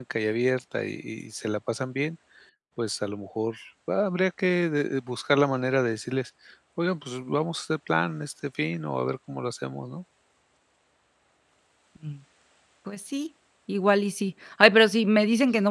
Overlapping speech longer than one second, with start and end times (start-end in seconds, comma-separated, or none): none